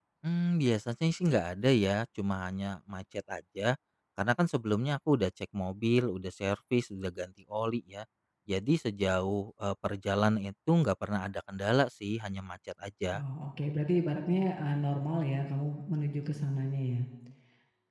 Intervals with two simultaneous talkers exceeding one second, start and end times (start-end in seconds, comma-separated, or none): none